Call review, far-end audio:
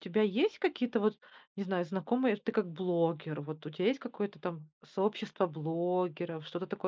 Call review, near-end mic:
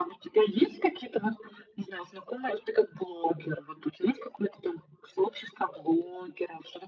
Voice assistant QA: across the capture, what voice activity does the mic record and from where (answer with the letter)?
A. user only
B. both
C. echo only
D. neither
C